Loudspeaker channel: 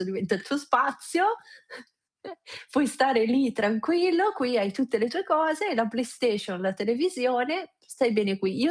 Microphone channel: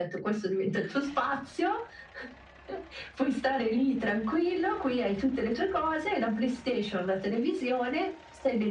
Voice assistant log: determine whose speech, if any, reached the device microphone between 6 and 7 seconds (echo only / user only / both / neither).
echo only